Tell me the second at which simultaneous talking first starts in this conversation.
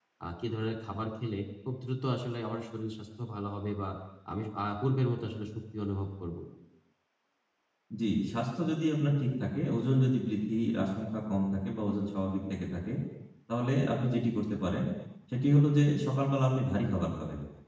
none

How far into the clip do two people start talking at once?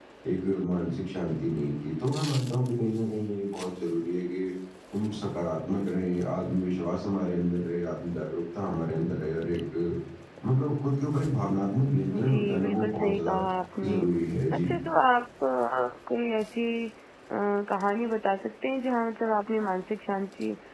12.1 s

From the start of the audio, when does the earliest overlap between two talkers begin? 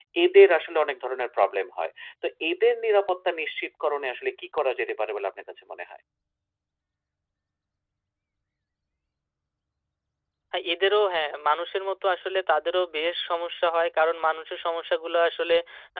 none

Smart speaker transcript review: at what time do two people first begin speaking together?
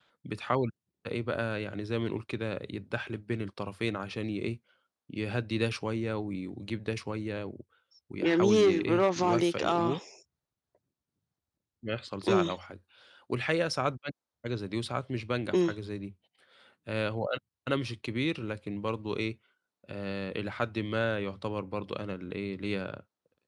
8.2 s

